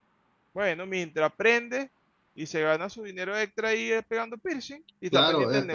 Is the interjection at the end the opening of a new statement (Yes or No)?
Yes